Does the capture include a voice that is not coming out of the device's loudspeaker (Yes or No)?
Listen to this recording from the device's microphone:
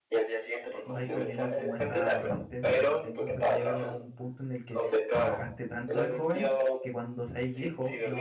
Yes